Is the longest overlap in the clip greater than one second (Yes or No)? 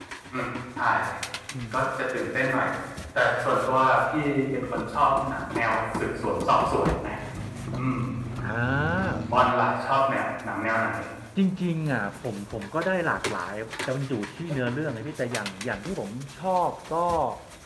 No